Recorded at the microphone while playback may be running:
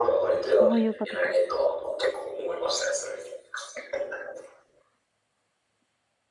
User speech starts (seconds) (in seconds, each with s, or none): 0.6 s